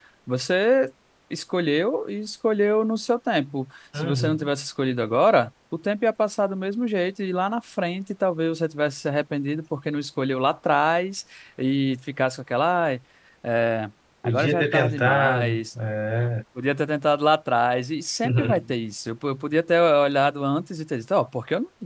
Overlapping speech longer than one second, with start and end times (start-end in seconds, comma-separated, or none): 14.2-15.6